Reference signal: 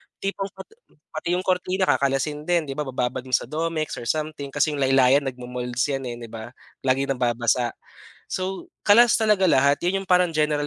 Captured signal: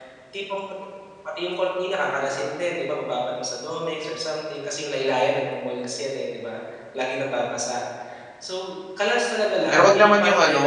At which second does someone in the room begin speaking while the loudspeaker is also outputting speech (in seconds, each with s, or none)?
9.7 s